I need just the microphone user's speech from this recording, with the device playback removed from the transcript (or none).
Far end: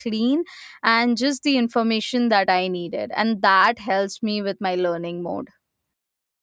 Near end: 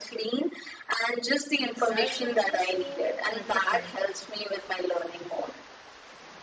Search engines show articles,